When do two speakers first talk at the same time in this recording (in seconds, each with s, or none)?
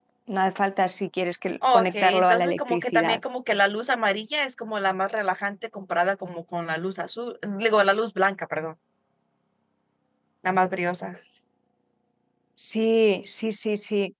1.6 s